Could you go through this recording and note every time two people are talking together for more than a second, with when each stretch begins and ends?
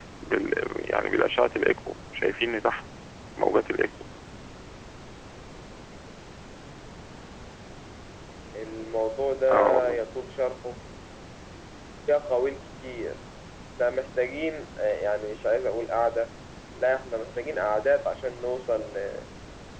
none

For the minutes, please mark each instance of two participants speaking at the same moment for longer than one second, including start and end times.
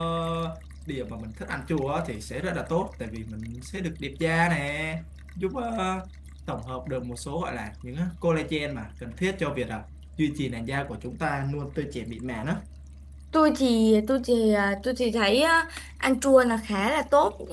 none

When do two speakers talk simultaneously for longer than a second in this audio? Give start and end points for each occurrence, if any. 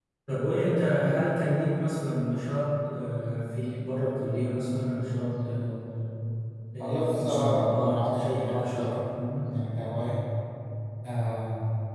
6.8-8.9

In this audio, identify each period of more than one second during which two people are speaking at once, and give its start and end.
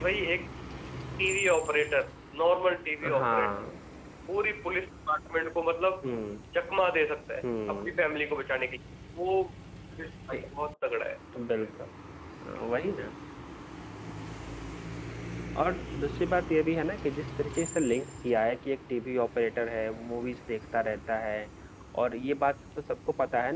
none

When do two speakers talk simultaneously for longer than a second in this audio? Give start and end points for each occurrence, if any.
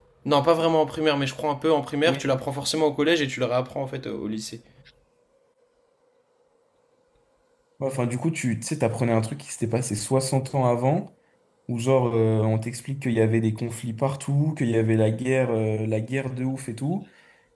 none

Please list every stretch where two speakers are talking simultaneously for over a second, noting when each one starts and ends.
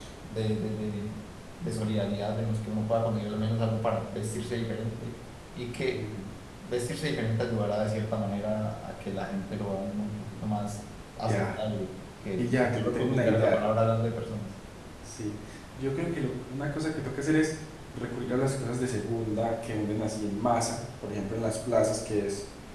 12.4-13.6

